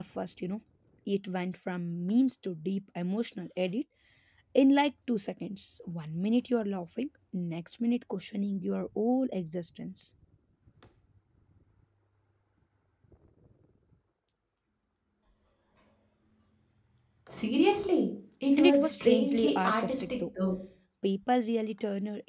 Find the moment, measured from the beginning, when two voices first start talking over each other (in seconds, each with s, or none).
18.6 s